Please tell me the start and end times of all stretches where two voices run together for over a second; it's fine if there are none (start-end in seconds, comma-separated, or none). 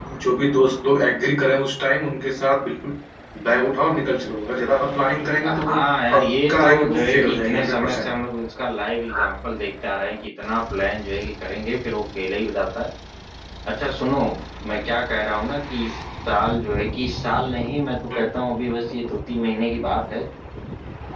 6.1-8.0